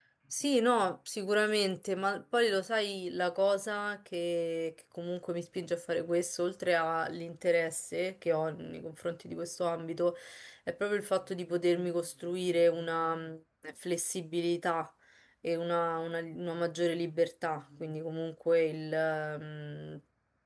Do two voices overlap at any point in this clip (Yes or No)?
No